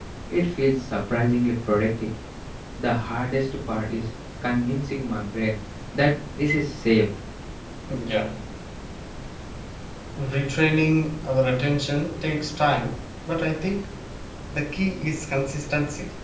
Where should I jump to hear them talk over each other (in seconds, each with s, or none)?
none